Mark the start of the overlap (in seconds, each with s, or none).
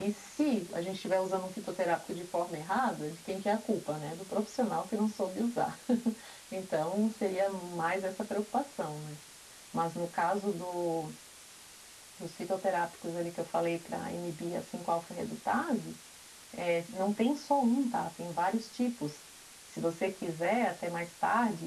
none